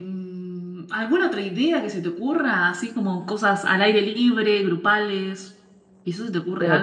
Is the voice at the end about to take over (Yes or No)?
Yes